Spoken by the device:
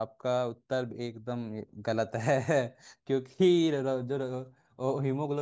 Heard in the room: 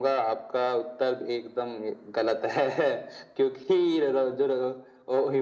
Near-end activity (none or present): none